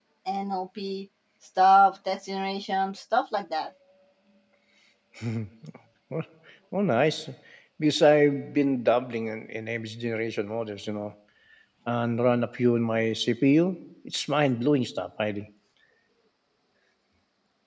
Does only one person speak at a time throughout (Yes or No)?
Yes